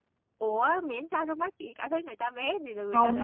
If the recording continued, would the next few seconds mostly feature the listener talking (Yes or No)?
Yes